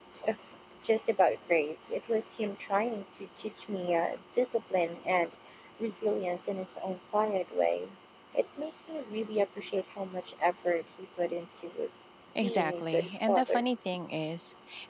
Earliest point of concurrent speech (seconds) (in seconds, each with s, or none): 12.4 s